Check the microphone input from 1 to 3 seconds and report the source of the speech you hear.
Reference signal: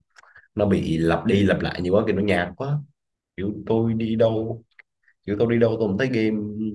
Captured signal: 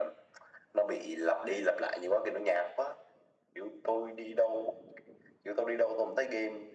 echo only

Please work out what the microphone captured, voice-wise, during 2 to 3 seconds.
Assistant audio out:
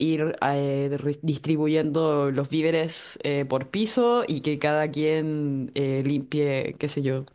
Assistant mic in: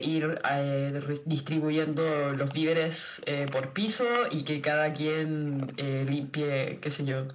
echo only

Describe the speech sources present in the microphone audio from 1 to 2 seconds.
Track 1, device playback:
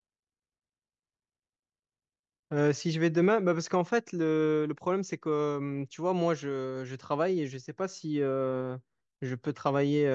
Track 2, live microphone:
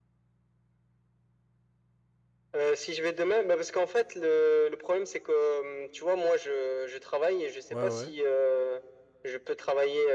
neither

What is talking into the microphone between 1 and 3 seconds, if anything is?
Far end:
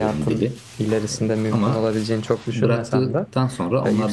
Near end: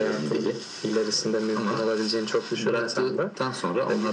echo only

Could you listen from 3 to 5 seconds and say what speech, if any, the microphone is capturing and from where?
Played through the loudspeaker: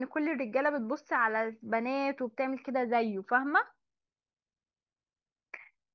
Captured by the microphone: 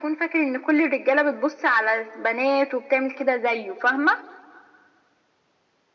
echo only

